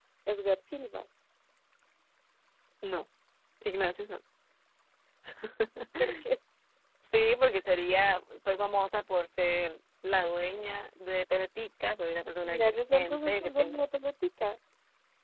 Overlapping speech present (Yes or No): Yes